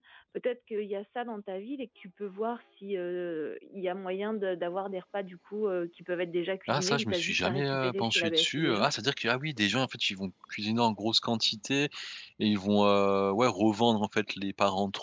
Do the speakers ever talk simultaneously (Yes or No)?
Yes